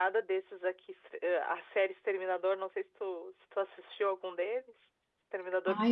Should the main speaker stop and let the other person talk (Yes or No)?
Yes